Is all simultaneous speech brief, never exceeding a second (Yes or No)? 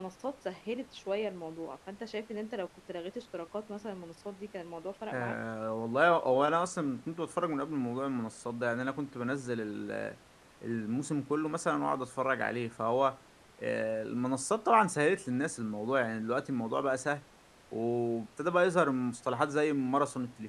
Yes